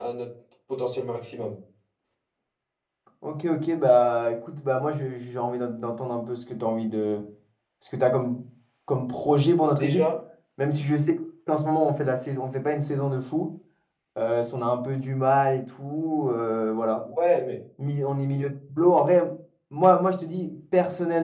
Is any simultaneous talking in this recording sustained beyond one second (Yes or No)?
No